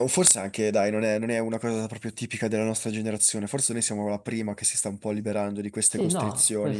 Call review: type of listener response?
taking over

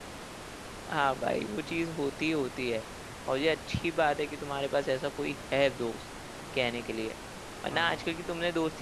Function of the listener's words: listening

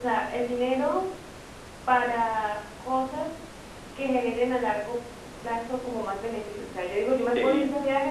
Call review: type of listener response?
listening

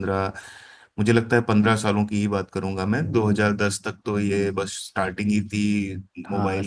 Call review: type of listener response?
taking over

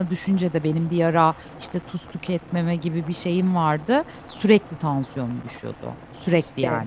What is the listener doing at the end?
taking over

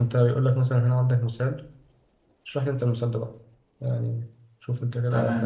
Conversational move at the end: taking over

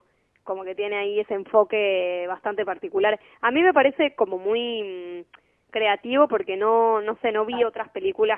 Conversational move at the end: listening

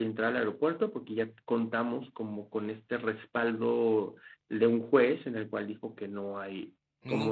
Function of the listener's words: listening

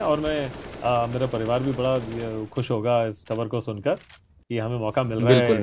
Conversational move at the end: listening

